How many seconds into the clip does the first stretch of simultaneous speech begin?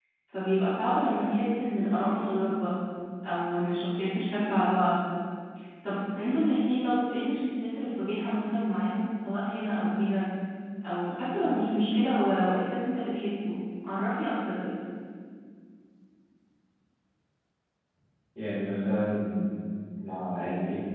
none

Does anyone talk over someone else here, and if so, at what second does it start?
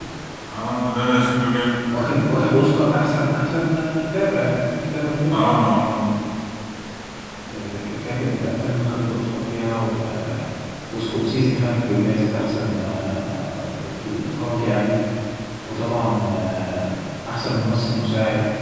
none

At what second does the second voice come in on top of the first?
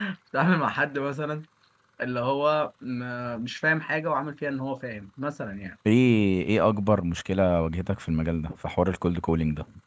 none

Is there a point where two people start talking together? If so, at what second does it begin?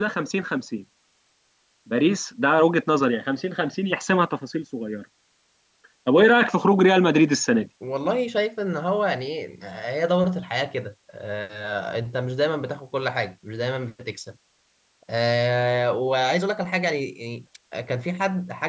none

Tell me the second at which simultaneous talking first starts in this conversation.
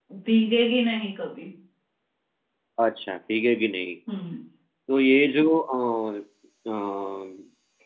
none

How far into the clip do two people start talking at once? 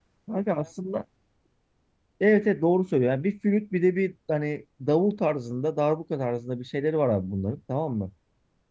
none

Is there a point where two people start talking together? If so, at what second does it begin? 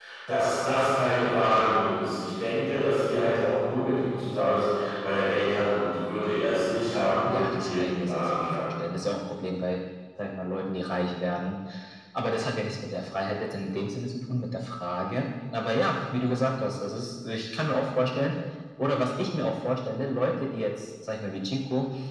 7.2 s

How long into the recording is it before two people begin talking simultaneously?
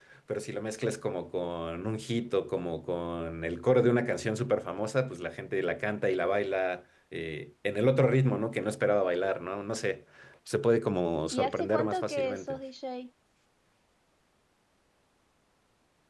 11.3 s

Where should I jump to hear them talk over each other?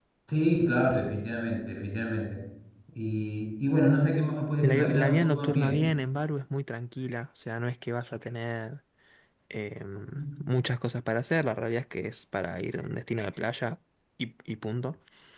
4.6 s

